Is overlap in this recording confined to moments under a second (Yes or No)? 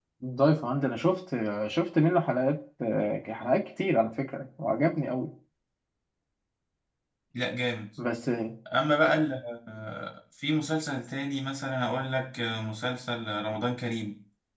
Yes